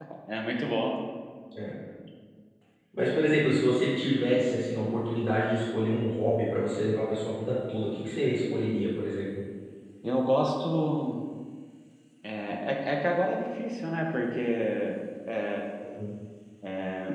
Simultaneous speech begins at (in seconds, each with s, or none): none